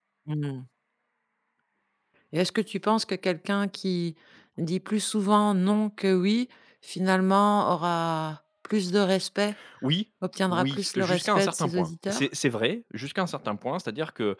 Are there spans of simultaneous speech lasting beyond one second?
Yes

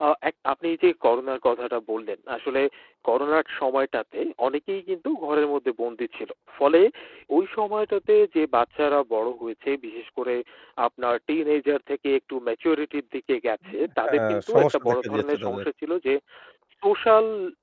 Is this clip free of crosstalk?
No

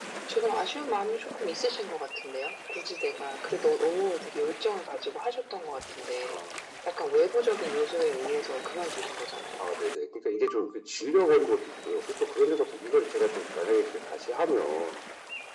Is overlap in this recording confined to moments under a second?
Yes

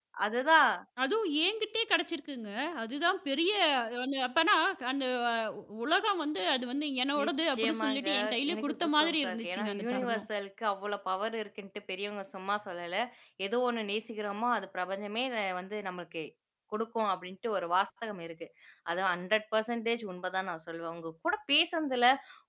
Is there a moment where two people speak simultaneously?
Yes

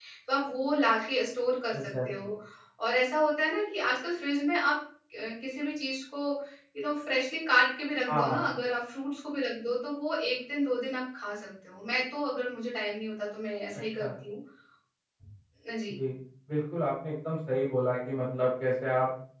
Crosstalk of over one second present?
No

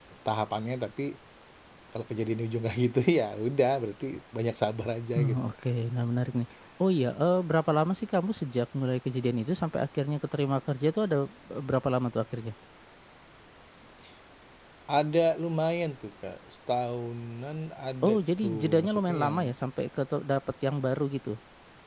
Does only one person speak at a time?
No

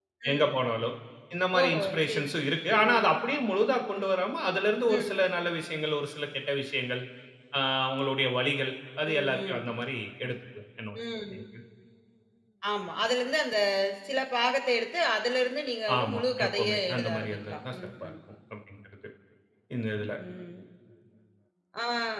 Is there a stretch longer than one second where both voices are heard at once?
Yes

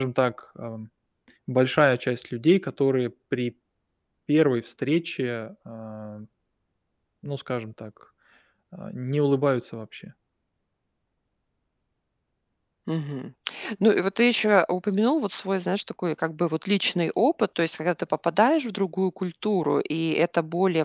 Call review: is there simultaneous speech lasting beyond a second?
No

